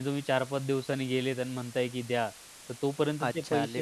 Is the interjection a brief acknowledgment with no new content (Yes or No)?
No